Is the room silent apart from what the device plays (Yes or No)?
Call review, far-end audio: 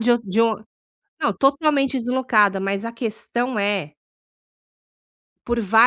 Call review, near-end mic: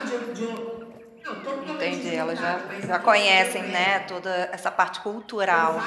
No